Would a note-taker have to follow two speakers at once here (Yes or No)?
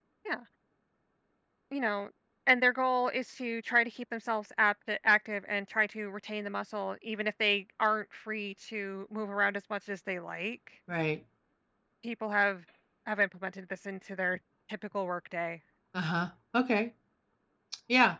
No